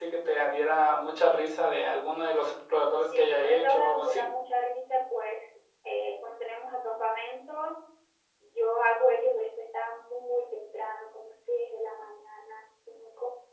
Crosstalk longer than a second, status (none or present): present